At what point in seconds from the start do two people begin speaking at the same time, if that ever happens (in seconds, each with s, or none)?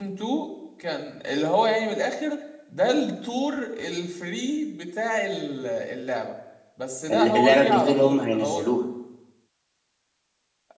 7.1 s